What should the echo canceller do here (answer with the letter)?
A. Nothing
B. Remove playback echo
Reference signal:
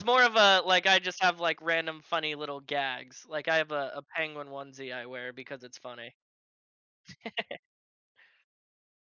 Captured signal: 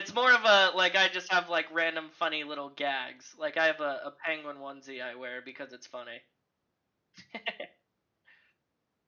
B